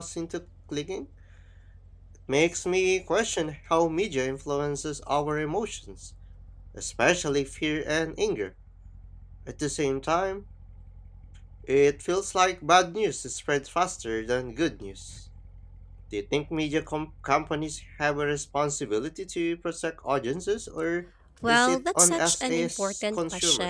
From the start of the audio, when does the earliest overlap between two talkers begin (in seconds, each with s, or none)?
21.4 s